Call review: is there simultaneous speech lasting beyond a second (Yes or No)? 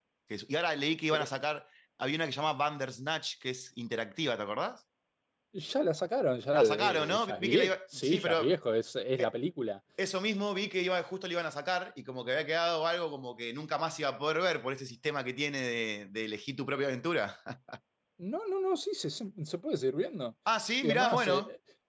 Yes